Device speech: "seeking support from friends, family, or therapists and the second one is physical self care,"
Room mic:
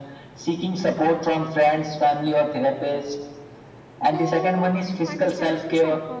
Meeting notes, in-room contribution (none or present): present